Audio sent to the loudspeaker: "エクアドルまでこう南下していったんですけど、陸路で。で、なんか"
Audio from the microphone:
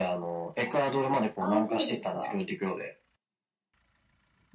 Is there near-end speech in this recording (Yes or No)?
Yes